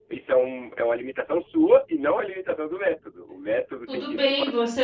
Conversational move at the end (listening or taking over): taking over